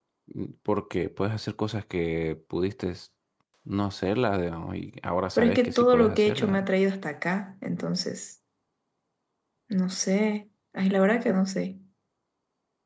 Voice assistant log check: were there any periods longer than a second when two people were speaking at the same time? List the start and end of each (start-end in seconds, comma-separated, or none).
5.4-6.7